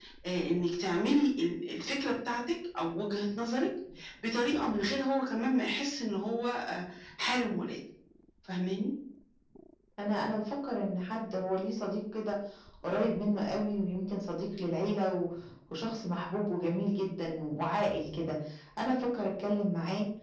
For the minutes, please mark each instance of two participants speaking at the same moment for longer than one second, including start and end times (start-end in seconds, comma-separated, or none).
none